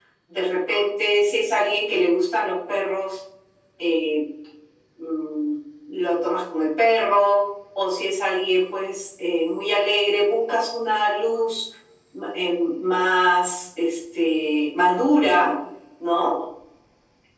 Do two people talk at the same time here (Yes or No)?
No